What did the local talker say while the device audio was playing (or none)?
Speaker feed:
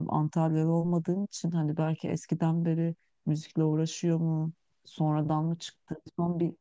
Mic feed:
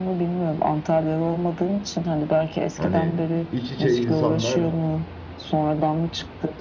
hani iç içe insanlar